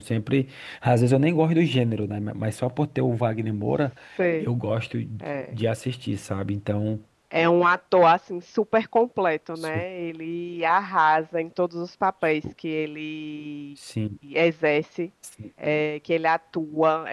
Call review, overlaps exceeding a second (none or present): none